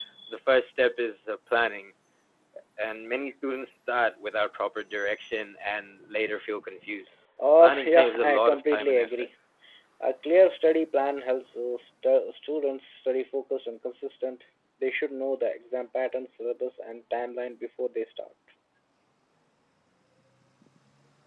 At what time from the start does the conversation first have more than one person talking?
7.6 s

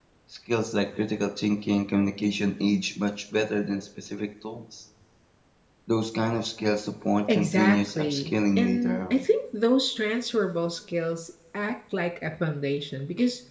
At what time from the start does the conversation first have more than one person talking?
7.3 s

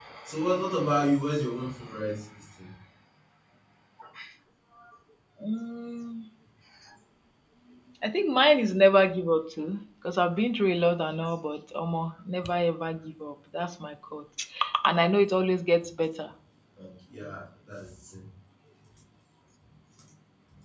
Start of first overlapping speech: none

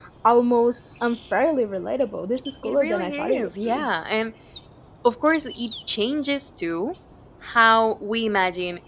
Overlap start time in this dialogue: 2.6 s

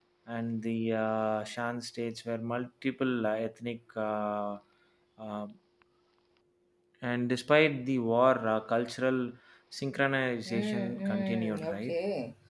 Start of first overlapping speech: 10.4 s

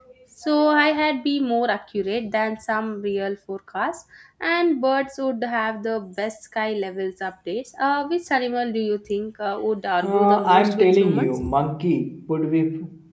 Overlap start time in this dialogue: 10.0 s

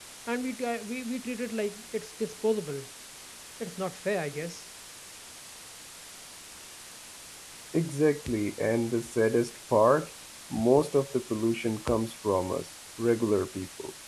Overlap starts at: none

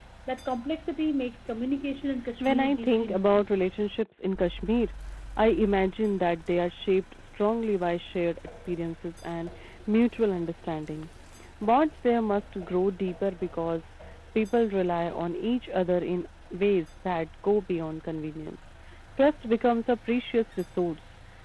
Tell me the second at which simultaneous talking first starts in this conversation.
2.4 s

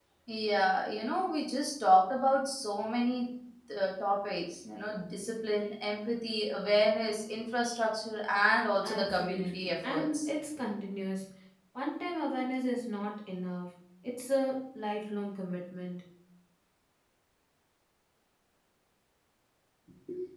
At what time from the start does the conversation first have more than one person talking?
8.8 s

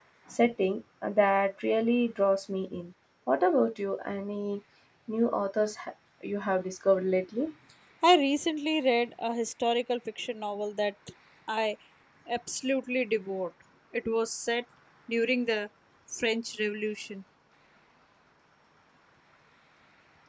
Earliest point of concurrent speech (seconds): none

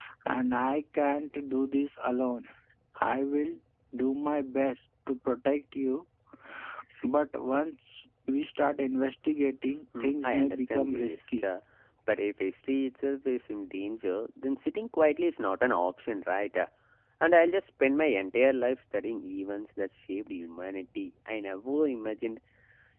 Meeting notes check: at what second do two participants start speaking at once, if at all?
9.9 s

